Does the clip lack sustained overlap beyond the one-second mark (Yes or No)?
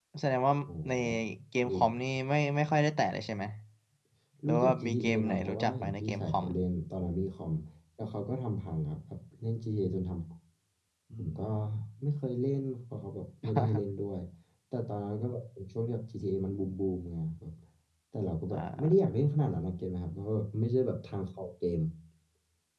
No